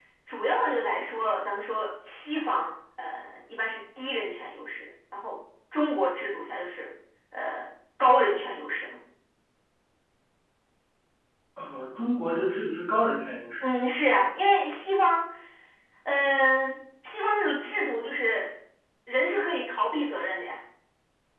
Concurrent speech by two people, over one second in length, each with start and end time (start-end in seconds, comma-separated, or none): none